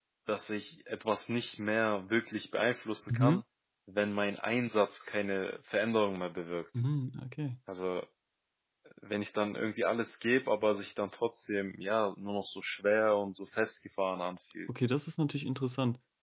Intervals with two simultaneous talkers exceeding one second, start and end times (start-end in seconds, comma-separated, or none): none